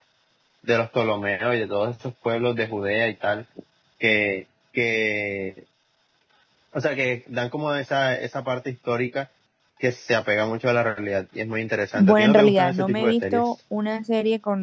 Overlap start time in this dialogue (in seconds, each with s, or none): 11.9 s